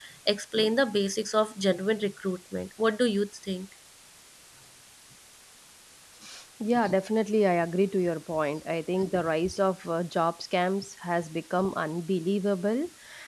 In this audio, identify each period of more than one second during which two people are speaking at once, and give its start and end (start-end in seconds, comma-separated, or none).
none